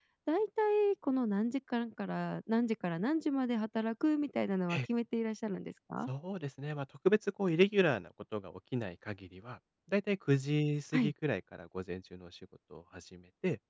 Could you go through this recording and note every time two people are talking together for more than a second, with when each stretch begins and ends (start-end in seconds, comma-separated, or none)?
none